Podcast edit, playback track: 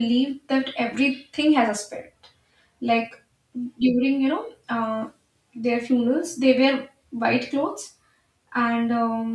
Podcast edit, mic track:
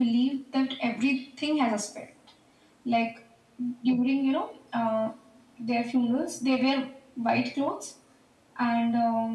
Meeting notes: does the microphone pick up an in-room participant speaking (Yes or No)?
No